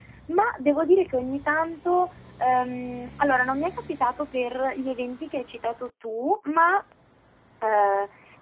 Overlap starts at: none

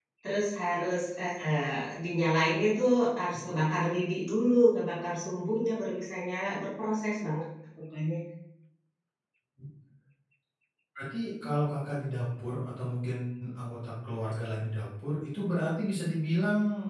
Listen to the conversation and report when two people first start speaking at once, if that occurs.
none

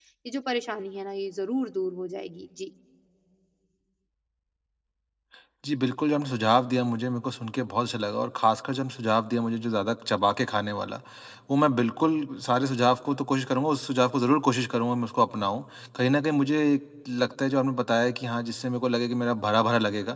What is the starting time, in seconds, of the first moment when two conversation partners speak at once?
none

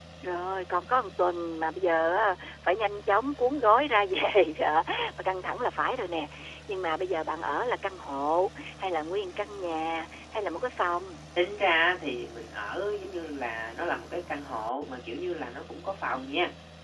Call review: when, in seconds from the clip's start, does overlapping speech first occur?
none

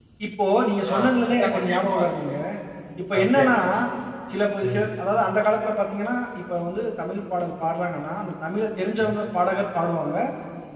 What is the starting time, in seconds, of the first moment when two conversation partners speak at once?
0.9 s

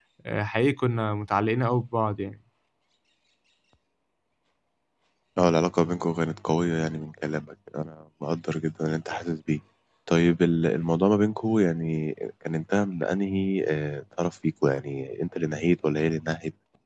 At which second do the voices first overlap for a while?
none

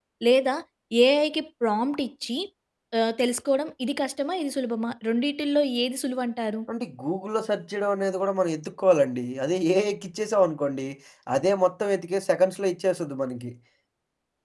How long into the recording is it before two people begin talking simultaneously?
none

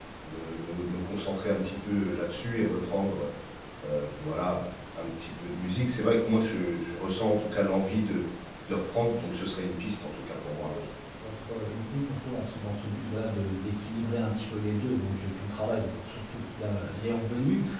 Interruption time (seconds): none

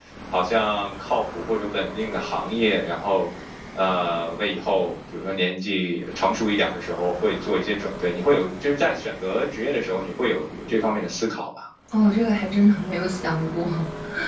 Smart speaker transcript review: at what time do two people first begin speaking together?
none

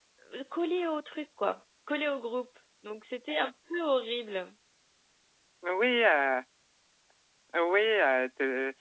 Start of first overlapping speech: none

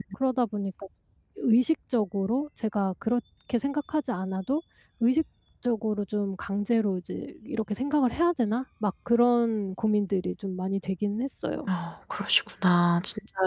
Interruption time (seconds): none

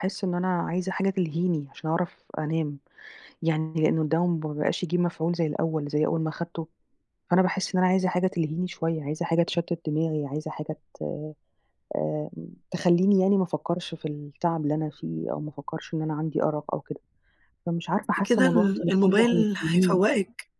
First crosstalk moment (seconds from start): 18.2 s

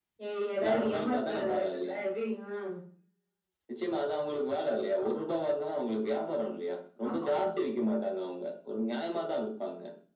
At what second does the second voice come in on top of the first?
0.6 s

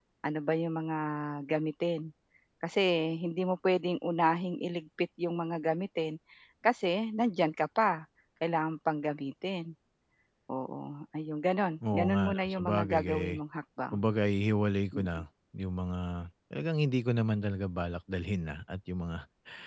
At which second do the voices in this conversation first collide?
11.9 s

